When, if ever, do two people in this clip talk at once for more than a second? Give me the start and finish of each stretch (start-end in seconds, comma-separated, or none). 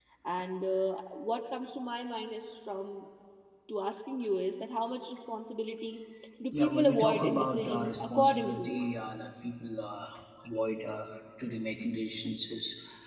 6.5-8.8